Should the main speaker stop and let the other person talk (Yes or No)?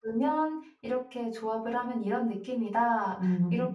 No